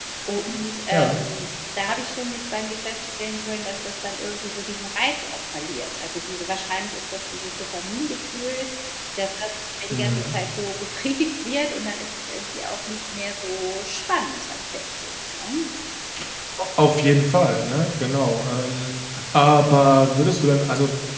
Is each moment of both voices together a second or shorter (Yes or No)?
Yes